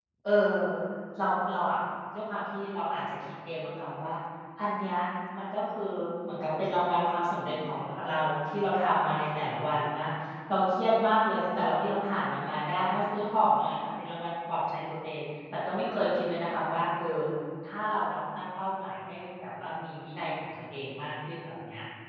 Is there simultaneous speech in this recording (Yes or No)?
No